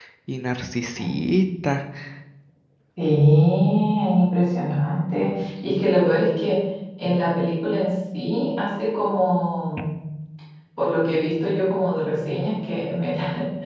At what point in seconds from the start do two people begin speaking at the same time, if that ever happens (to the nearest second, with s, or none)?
none